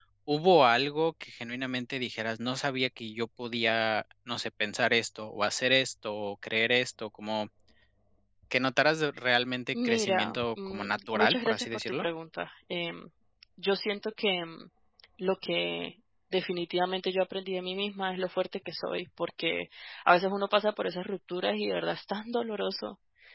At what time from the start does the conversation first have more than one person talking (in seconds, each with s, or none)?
9.7 s